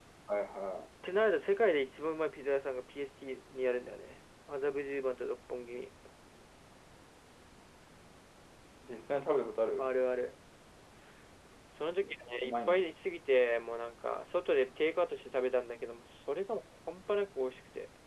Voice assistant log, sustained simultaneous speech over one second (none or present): none